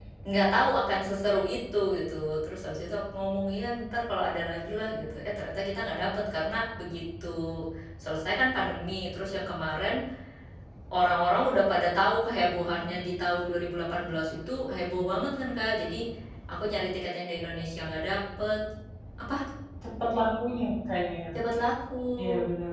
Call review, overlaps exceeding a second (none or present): none